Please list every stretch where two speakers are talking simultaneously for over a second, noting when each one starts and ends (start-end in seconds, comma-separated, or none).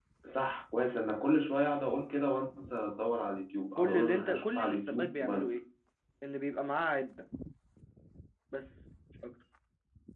3.8-5.6